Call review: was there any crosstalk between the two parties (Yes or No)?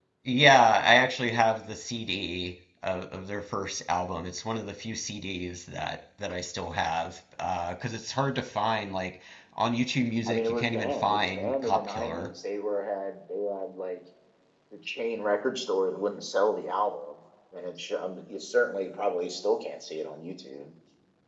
Yes